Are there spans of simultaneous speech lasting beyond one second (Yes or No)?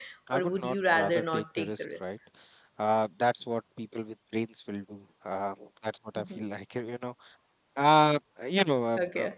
Yes